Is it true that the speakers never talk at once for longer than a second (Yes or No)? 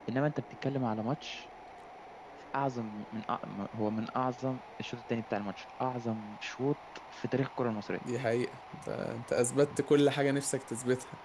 Yes